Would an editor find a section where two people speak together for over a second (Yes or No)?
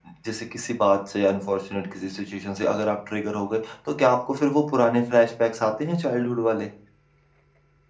No